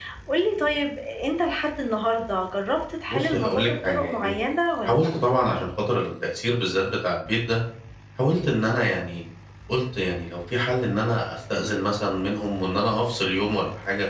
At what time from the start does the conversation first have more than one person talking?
3.1 s

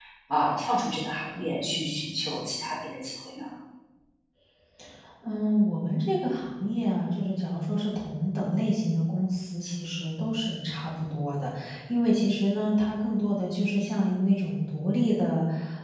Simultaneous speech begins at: none

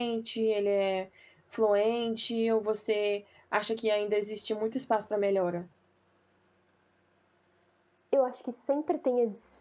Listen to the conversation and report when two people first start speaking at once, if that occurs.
none

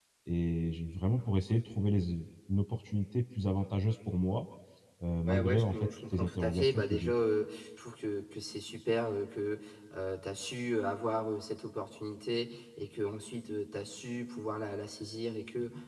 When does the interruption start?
5.3 s

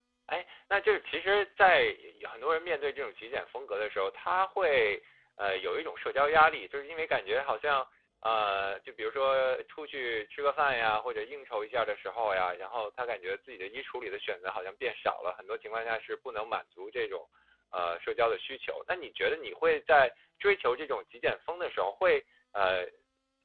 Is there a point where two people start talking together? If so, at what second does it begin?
none

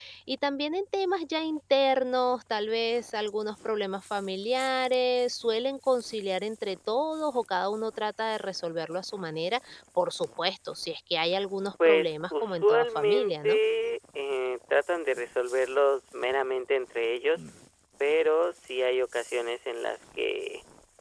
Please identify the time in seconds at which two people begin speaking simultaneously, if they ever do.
11.8 s

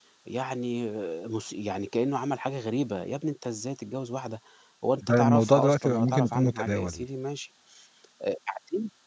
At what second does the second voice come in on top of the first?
5.1 s

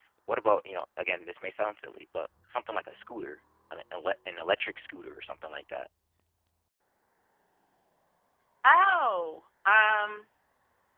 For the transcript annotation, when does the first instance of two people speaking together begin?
none

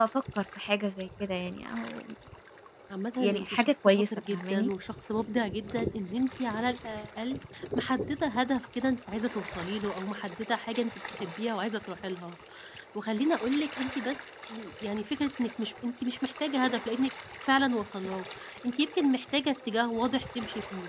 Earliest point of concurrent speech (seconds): 3.2 s

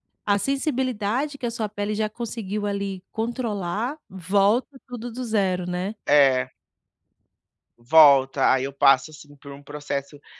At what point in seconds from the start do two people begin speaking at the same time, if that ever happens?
none

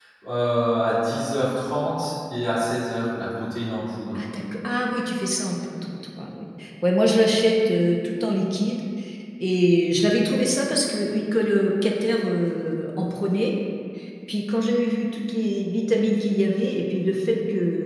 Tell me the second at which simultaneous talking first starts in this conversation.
none

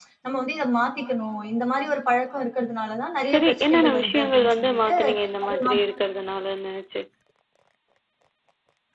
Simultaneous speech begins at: 3.3 s

